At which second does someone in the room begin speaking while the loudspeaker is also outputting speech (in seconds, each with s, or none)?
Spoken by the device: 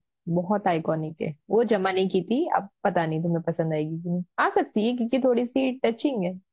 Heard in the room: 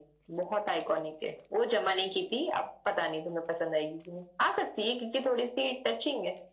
none